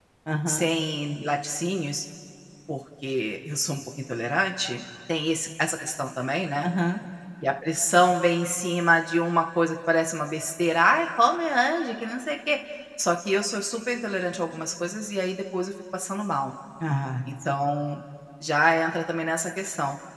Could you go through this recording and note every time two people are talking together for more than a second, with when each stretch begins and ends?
none

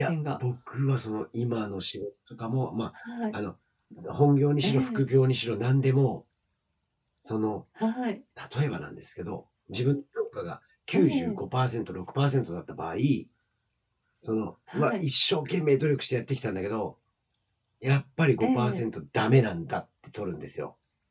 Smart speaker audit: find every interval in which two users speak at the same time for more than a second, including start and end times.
none

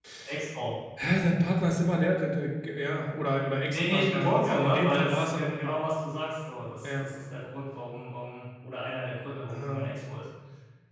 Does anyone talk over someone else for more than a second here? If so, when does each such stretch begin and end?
3.7-5.8

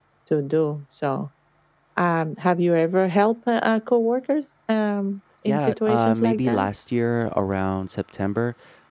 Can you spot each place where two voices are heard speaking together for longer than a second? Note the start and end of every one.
5.5-6.7

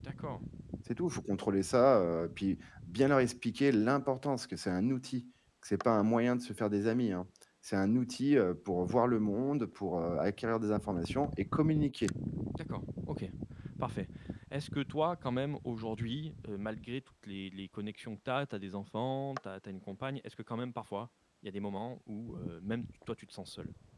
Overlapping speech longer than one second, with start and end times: none

